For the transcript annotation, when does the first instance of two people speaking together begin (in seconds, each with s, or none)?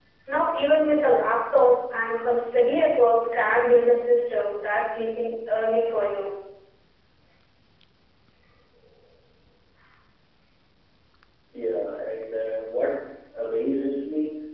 none